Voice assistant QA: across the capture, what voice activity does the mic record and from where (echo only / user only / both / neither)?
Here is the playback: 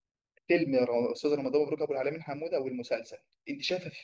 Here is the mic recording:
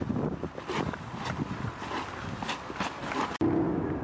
neither